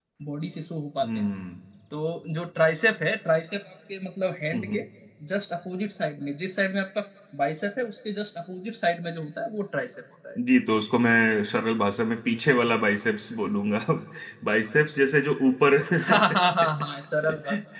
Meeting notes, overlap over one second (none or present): none